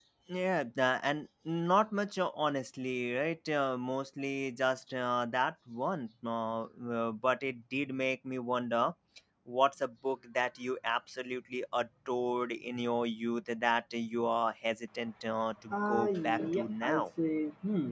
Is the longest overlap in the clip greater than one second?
Yes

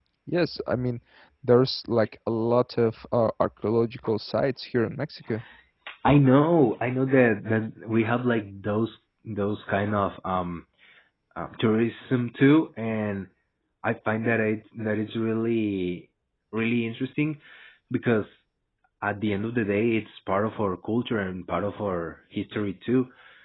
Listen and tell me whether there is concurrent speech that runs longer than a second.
No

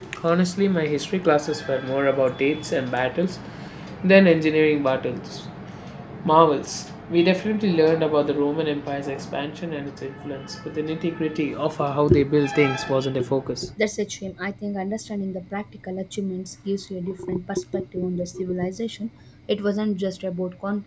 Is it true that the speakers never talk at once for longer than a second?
Yes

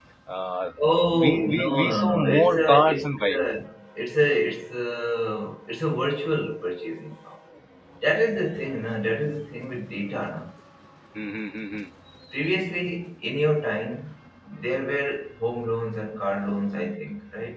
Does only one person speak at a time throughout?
No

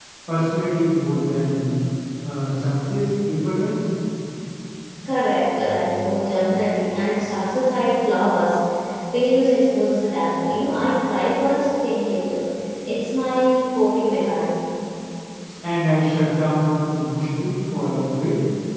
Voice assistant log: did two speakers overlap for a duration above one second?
No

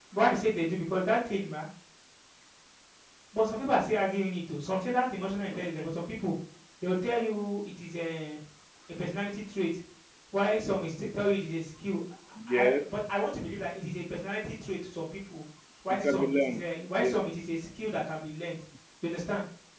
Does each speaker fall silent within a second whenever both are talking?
No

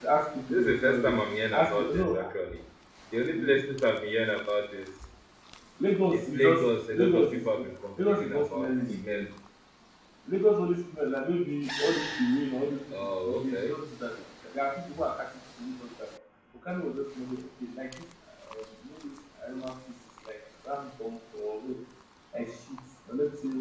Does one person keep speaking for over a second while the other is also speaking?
Yes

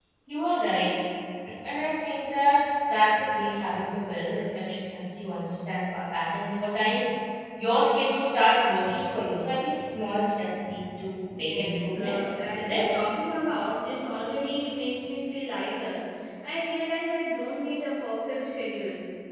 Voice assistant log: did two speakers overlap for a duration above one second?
Yes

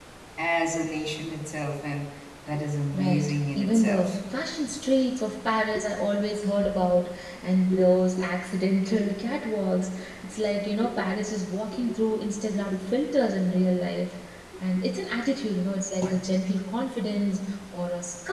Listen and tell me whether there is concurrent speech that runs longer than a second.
Yes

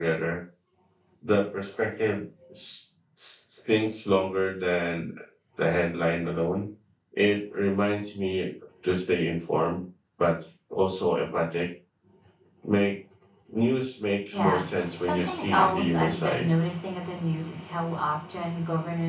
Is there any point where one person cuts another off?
Yes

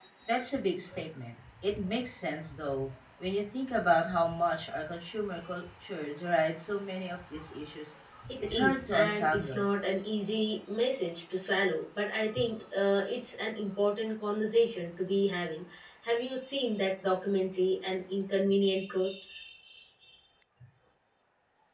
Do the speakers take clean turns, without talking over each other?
No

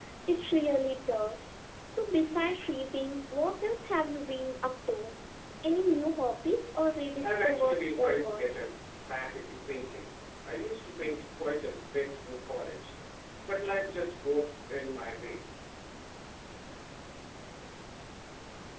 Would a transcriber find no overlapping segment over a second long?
No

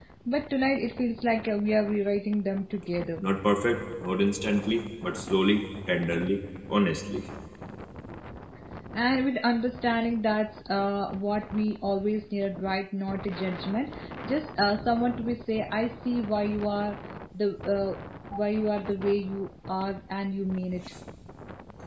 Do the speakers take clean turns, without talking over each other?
Yes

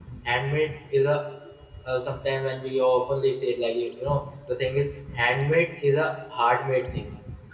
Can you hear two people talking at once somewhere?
No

